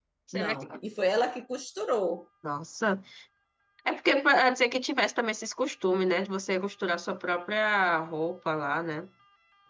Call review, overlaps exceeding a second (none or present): none